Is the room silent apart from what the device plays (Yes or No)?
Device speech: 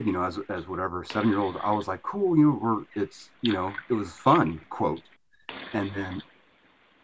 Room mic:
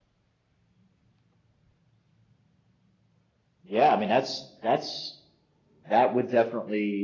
No